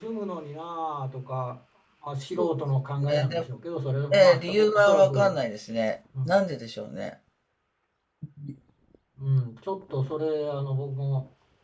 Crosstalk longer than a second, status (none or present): present